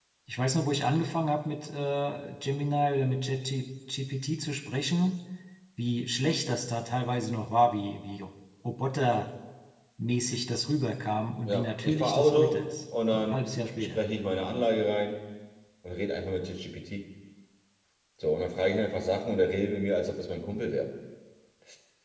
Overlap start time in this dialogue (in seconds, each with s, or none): 11.4 s